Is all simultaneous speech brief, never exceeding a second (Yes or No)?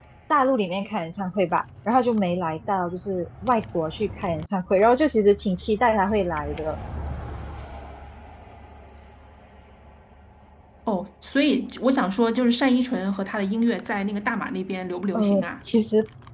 Yes